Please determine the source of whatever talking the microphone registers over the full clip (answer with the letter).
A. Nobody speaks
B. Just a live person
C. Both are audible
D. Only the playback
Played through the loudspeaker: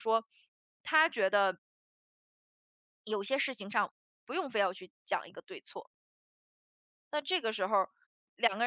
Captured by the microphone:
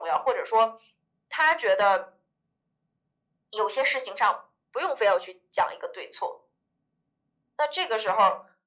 D